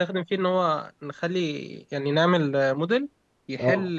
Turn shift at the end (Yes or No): No